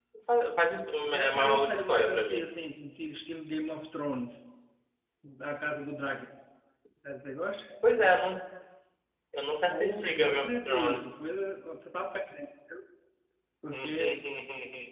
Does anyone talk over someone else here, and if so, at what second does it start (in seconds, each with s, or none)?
1.1 s